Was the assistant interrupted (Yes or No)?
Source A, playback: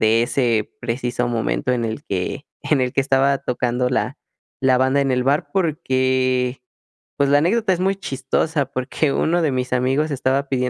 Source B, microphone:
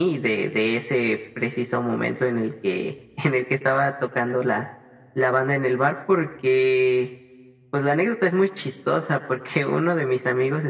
No